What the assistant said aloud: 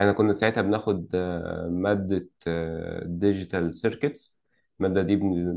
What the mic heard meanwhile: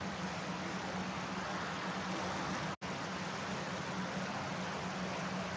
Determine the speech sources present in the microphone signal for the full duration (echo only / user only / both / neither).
neither